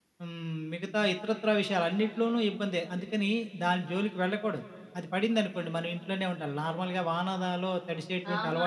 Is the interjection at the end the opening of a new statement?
Yes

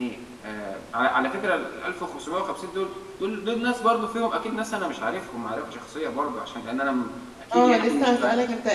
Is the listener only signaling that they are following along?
No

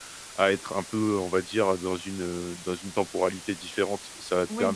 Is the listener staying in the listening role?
Yes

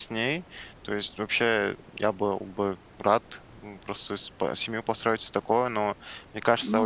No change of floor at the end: Yes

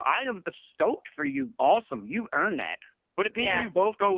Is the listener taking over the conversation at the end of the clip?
No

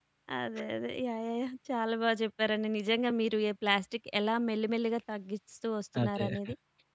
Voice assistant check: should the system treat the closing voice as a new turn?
No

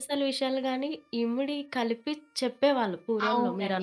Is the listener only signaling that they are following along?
No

